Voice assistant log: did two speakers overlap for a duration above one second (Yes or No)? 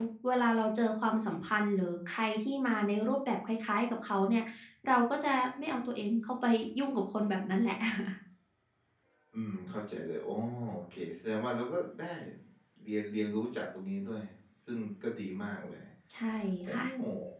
No